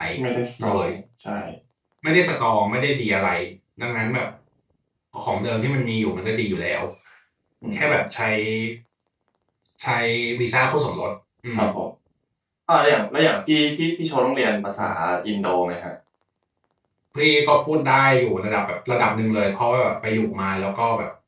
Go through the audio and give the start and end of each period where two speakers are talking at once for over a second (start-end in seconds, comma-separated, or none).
none